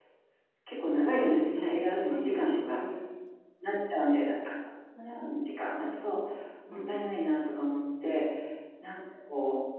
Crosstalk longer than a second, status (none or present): present